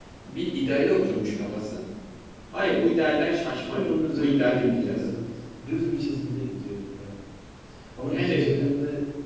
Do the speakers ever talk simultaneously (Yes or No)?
Yes